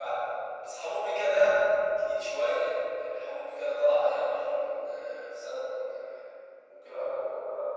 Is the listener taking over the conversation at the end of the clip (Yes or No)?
Yes